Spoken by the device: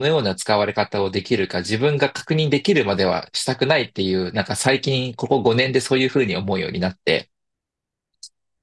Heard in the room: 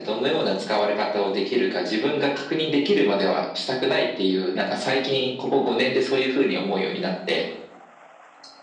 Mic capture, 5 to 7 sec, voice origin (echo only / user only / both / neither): echo only